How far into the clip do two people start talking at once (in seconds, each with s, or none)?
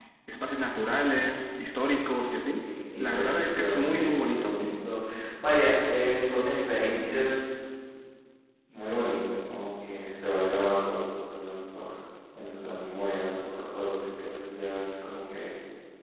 3.0 s